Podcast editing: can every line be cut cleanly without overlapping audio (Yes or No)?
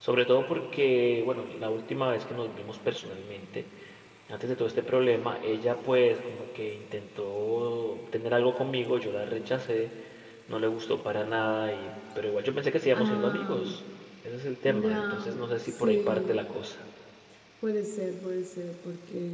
No